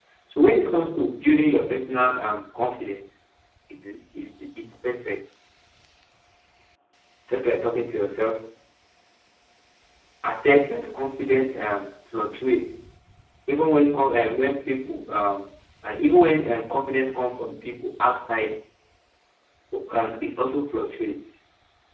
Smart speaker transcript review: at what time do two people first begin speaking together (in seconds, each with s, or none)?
none